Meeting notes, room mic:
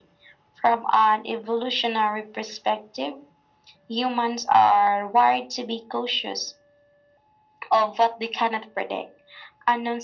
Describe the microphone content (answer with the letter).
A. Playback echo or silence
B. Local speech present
A